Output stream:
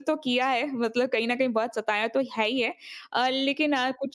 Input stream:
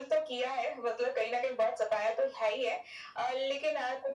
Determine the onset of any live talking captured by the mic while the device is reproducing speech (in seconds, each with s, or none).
none